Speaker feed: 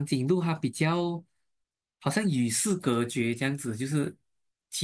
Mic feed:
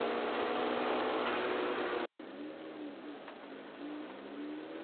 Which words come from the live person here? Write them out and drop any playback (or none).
none